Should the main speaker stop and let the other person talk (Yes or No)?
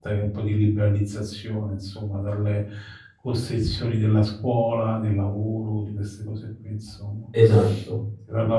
No